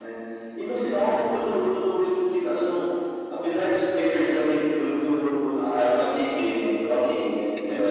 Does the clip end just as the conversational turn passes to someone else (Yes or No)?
Yes